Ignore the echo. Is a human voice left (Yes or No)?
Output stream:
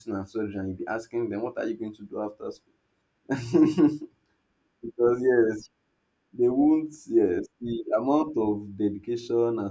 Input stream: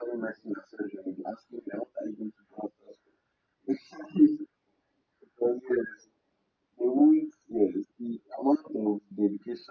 No